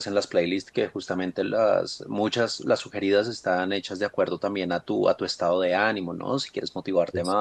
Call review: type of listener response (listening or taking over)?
listening